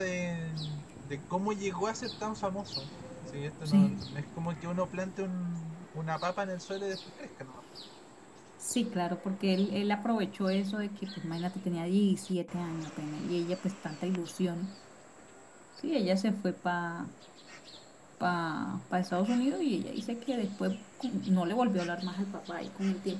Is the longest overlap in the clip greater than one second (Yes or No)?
No